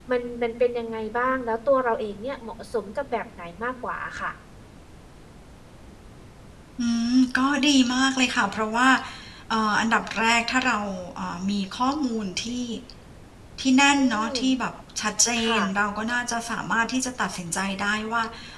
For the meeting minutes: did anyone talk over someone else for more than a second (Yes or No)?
No